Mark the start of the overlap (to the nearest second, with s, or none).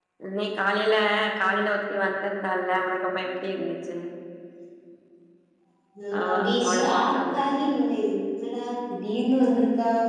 6 s